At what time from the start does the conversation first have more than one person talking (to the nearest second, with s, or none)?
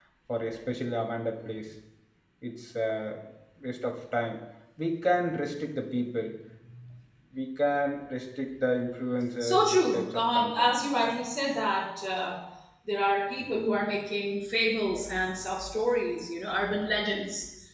9 s